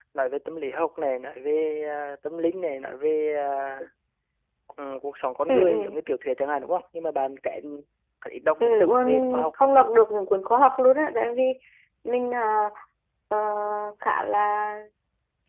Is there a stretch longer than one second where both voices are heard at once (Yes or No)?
Yes